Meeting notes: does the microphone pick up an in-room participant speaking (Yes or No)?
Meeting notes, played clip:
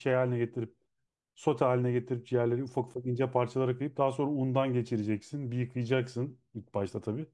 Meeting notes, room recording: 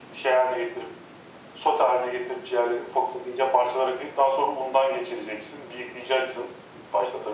No